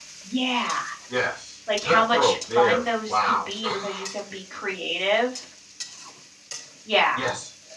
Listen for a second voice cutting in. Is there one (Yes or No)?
Yes